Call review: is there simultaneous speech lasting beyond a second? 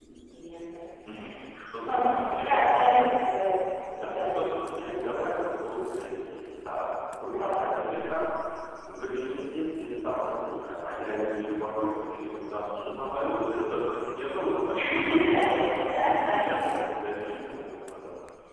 Yes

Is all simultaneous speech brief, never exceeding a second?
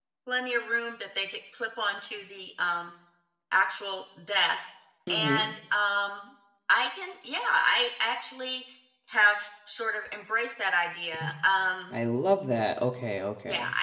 Yes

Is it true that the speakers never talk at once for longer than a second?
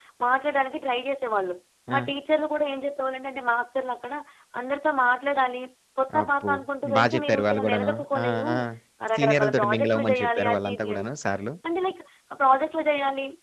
No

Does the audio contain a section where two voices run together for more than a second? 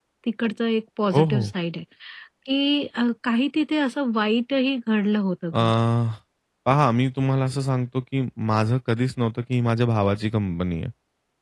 No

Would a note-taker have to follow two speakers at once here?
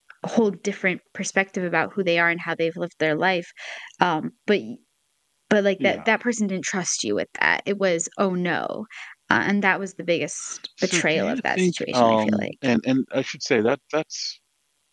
Yes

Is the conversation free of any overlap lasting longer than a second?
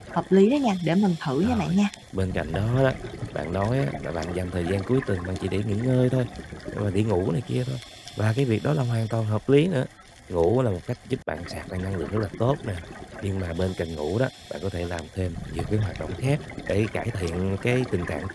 Yes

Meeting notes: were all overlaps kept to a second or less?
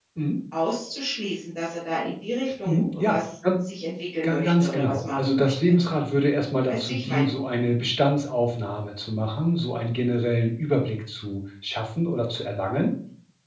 No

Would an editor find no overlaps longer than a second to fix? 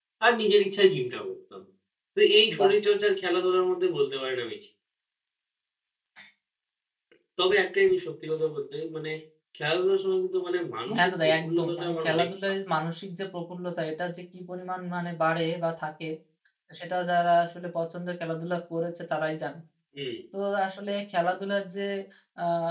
No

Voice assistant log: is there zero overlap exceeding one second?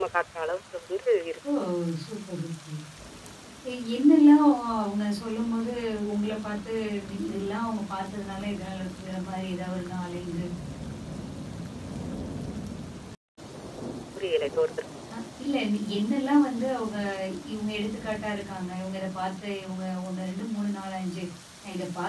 Yes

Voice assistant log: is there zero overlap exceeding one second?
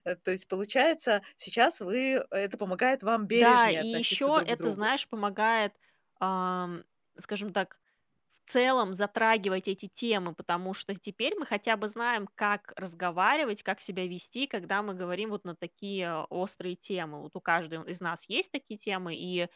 No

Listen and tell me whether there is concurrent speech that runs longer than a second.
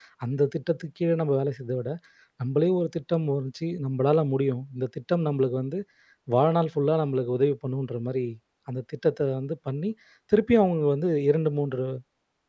No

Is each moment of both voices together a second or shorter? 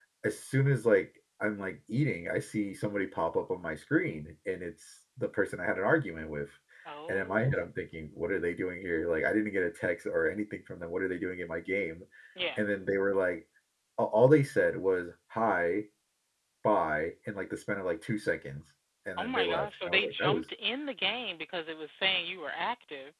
No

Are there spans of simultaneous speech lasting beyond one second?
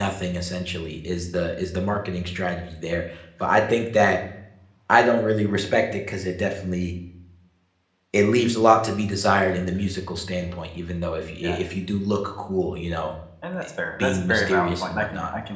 Yes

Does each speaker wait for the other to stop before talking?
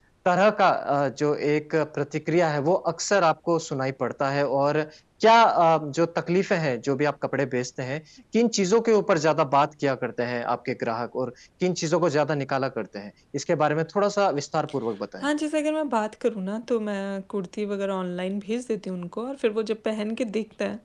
Yes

